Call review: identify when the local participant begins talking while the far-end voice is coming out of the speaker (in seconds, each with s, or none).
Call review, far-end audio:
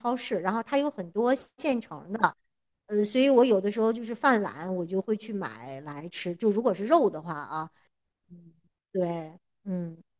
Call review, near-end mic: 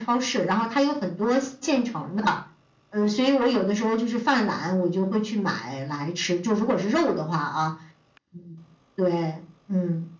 none